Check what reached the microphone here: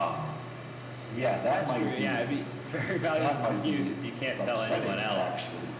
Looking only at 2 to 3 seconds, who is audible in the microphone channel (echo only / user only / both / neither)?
echo only